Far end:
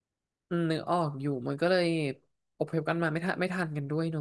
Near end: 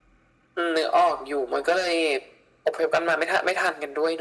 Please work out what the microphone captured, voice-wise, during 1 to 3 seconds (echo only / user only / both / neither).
echo only